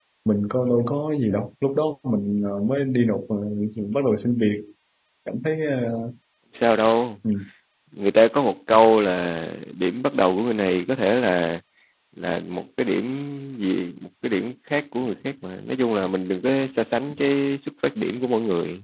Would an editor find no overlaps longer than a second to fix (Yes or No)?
Yes